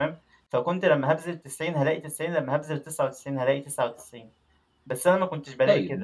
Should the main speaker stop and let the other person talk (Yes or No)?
Yes